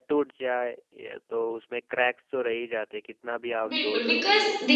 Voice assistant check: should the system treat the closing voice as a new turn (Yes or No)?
Yes